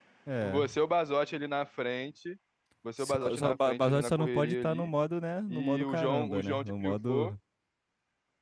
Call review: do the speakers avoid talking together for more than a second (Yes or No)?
No